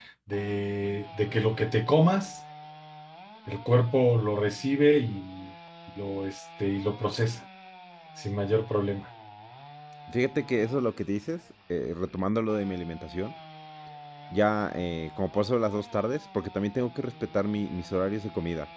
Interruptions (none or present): none